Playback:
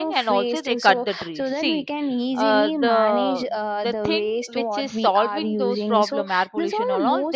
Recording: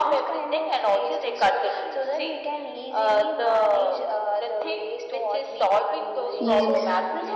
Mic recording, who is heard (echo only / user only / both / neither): both